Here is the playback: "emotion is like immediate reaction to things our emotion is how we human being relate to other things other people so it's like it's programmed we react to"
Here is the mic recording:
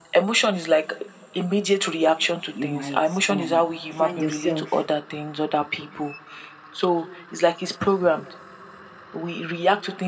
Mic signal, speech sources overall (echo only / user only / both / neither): both